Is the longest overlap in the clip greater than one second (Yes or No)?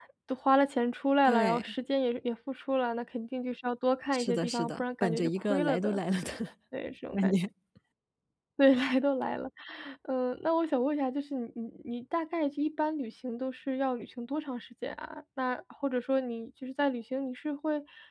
Yes